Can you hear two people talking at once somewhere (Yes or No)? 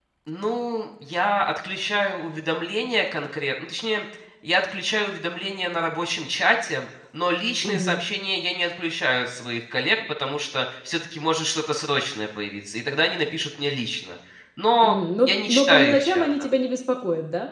Yes